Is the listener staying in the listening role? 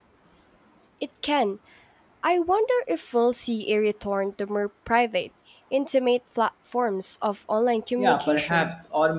No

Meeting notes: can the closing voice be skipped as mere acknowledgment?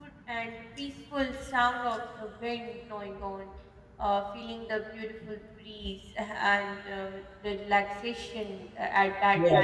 No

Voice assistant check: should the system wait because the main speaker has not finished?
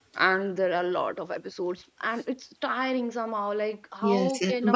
No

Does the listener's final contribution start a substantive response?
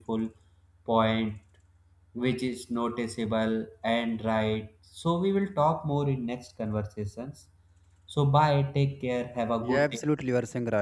Yes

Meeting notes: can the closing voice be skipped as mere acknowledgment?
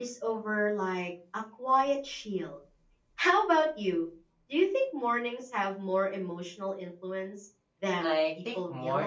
No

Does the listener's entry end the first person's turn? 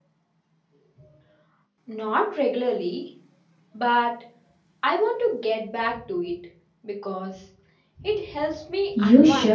Yes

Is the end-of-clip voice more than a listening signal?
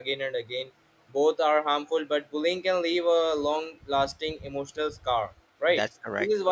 No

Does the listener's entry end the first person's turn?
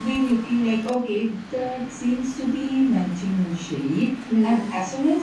No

